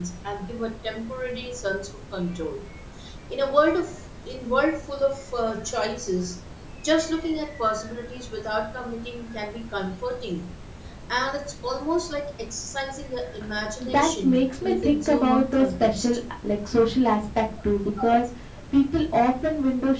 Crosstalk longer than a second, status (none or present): present